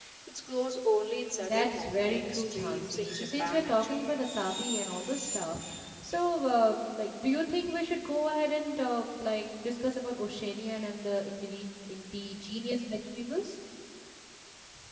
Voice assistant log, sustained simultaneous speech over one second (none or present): present